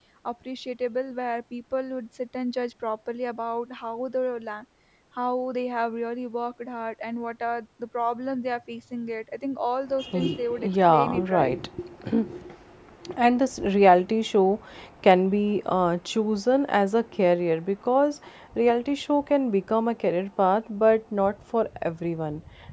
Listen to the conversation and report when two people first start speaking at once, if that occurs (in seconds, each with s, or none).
10.1 s